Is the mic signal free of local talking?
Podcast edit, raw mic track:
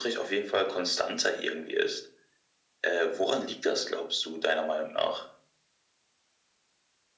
Yes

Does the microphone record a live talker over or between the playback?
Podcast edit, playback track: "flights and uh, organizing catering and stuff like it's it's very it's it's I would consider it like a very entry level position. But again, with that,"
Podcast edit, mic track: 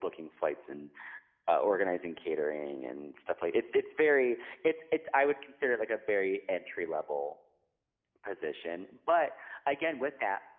No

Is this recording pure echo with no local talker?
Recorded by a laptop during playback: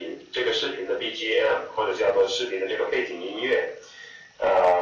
Yes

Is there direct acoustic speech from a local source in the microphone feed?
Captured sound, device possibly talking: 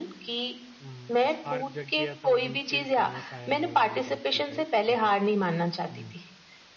Yes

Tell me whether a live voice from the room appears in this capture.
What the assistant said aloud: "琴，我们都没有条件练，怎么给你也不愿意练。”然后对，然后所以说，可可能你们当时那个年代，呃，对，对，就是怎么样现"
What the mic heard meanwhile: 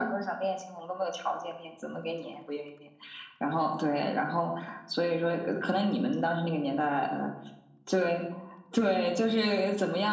No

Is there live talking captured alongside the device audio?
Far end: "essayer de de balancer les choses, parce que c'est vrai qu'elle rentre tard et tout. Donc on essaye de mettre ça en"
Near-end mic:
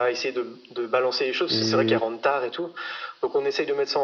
Yes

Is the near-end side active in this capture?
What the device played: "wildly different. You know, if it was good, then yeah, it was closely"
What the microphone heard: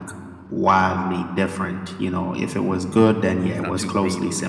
Yes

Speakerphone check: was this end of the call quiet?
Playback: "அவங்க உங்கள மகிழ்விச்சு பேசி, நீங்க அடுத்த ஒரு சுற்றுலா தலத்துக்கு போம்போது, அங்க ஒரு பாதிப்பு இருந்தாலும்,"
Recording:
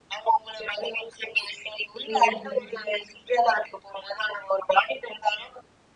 No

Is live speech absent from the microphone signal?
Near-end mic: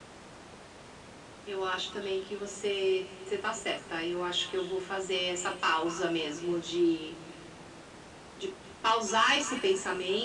Yes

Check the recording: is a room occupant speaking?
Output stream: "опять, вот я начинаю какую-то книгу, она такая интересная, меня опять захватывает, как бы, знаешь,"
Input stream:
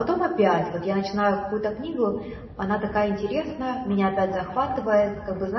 No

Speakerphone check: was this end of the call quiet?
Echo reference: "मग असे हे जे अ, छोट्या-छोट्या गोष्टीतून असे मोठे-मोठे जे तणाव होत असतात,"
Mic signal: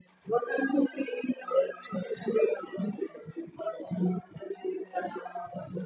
Yes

